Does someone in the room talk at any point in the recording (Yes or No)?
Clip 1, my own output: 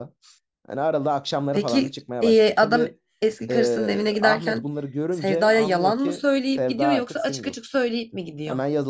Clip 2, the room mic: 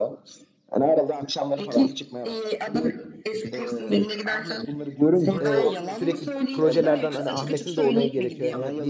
Yes